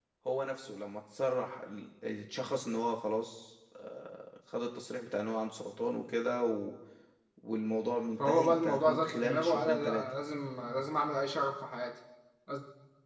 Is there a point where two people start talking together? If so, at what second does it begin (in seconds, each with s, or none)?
8.2 s